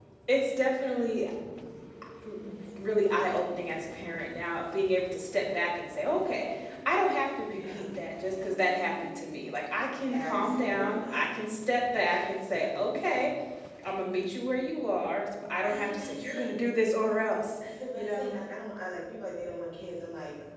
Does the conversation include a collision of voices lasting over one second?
Yes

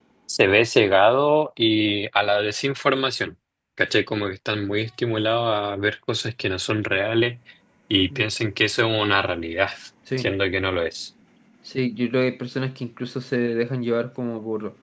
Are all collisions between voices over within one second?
Yes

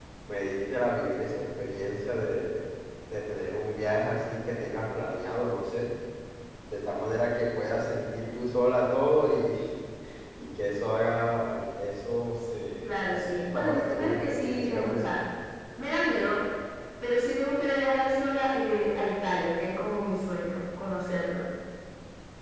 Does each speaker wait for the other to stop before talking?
No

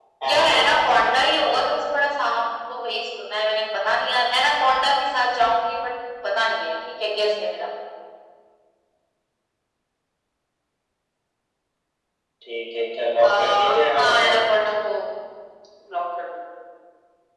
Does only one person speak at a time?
No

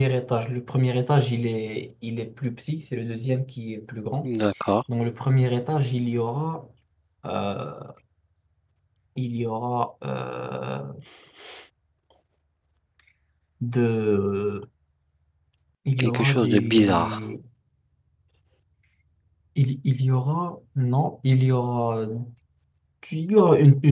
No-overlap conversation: No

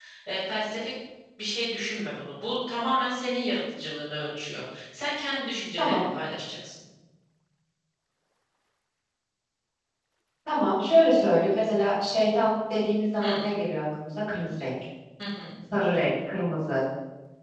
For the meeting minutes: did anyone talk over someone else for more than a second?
No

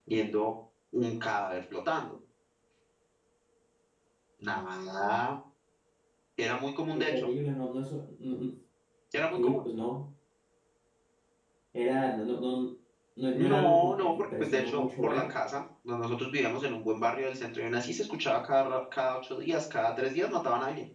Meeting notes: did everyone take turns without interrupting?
No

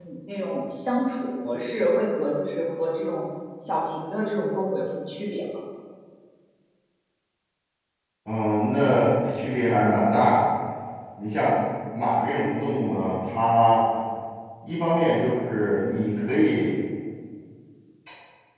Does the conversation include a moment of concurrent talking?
No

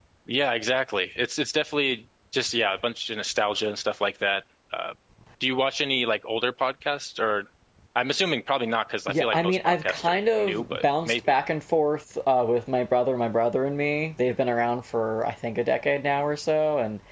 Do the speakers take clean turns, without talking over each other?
No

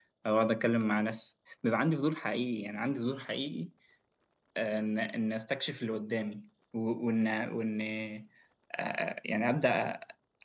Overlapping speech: No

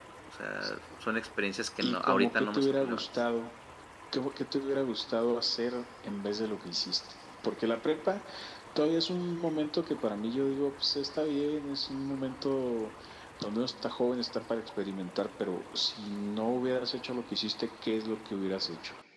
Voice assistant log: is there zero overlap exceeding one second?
No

